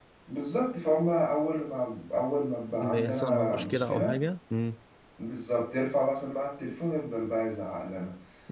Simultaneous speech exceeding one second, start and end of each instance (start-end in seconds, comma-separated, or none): 2.8-4.2